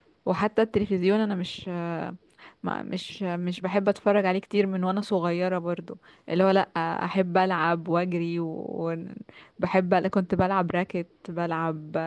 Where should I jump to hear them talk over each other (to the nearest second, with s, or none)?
none